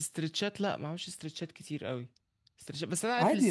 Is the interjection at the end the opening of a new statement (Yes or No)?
No